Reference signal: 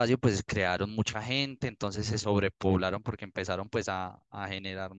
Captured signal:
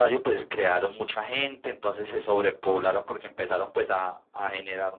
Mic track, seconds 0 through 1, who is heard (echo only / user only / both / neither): echo only